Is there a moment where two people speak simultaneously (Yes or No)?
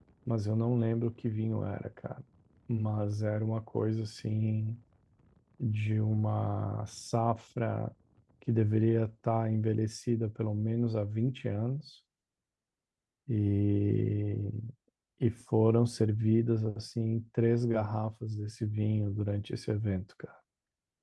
No